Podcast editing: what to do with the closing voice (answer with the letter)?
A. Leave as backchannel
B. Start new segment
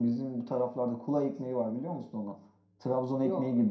A